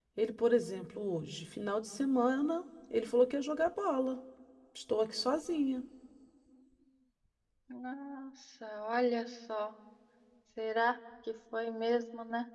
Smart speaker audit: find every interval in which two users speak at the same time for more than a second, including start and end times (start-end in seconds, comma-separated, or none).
none